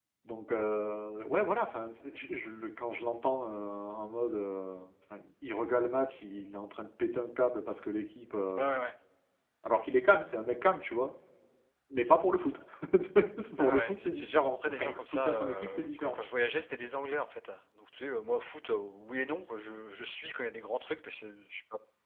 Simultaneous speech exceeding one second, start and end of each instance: 13.6-16.2

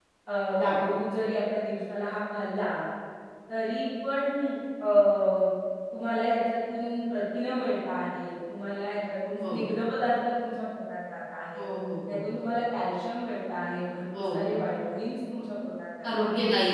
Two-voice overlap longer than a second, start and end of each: none

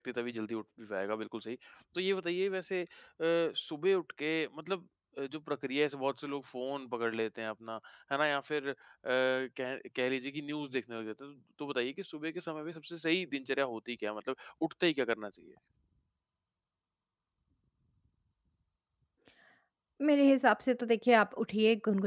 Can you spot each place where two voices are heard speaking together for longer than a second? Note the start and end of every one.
none

